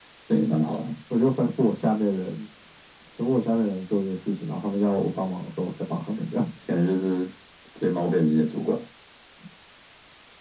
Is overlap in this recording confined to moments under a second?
Yes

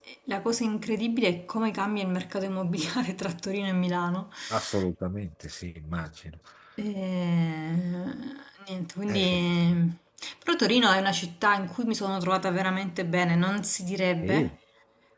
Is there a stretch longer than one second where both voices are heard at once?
No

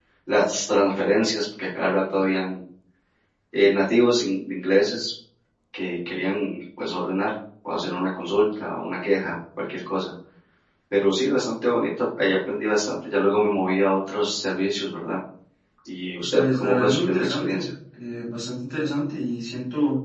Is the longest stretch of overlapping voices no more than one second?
No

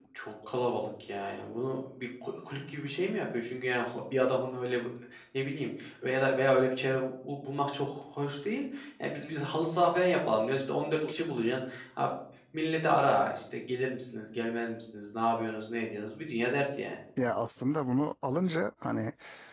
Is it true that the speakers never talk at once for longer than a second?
Yes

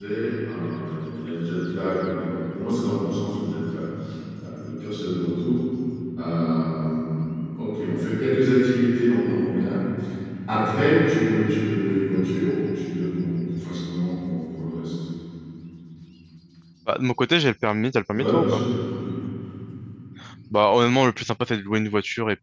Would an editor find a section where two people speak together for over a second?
No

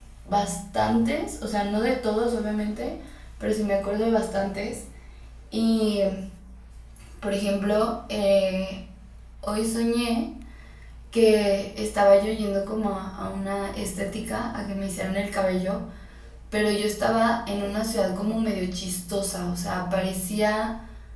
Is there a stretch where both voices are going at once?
No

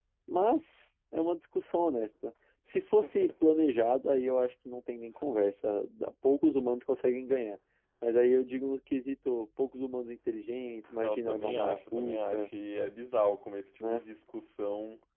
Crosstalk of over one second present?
Yes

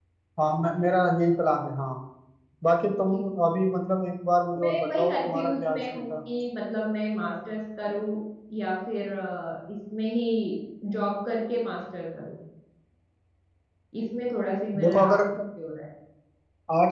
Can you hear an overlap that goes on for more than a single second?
Yes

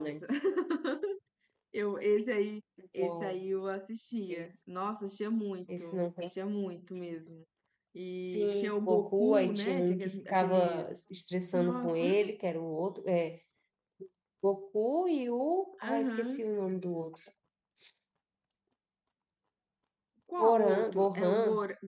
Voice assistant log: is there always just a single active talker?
No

